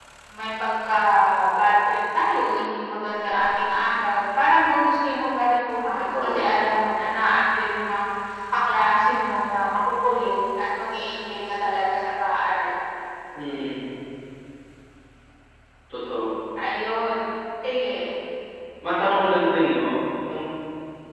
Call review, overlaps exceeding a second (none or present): none